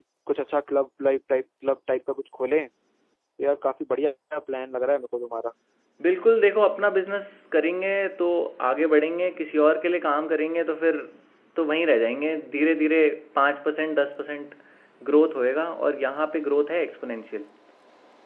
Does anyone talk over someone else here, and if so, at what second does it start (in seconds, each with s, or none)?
none